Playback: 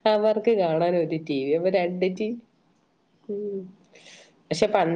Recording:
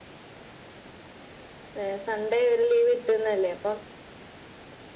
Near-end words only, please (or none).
ഏഹ് സൺഡേ ഒര് ലീവ് കിട്ട്ന്നല്ലേ അപ്പം